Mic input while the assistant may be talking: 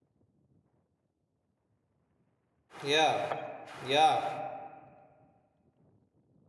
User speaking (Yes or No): Yes